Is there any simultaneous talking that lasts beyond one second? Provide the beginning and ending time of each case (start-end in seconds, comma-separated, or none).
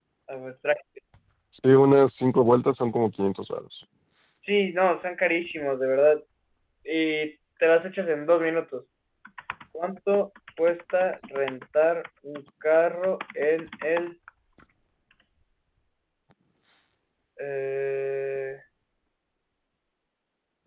none